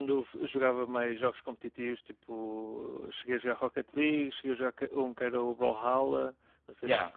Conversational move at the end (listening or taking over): taking over